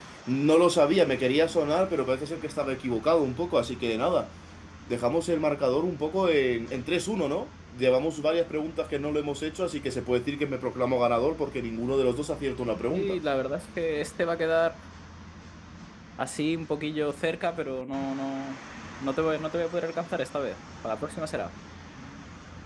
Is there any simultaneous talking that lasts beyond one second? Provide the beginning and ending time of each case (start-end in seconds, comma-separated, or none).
none